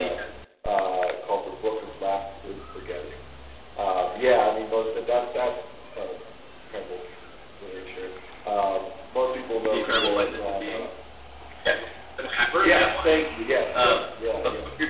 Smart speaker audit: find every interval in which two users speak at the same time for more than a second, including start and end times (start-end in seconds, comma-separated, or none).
9.6-10.9